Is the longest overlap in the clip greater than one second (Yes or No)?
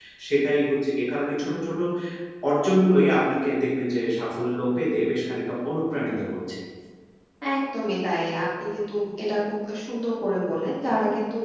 No